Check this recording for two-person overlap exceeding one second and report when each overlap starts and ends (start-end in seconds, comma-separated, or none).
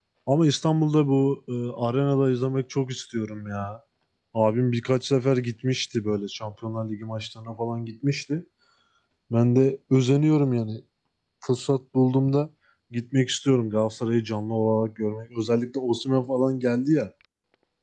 none